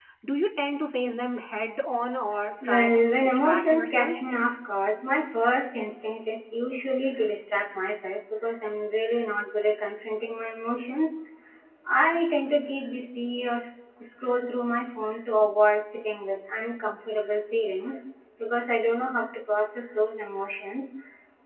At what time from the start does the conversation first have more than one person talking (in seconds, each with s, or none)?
2.6 s